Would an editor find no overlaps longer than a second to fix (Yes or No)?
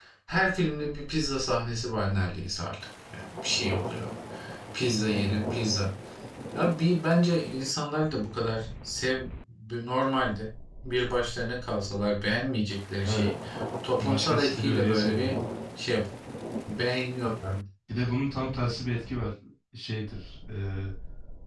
No